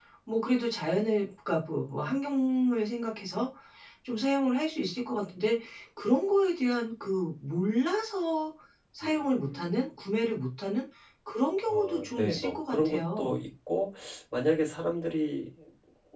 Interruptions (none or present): present